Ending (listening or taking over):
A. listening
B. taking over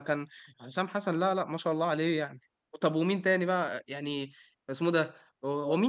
A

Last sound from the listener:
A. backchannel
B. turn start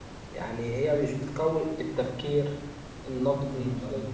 B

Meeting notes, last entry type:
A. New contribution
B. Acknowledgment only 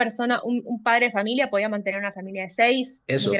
A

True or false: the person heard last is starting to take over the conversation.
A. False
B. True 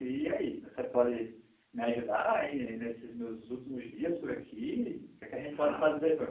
A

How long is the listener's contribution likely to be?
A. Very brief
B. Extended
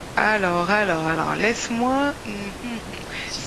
A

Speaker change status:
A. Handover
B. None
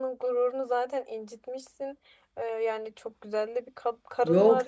A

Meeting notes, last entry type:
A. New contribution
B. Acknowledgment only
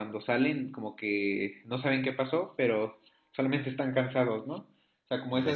A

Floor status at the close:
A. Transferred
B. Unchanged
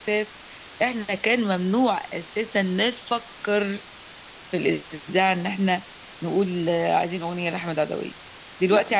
B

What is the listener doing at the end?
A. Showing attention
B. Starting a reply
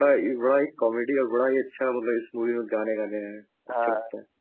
B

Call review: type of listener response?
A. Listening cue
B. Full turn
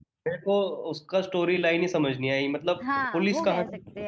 B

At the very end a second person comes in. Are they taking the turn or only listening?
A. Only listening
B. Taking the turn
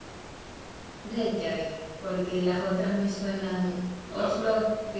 A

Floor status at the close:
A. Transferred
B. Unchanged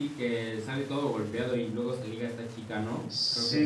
A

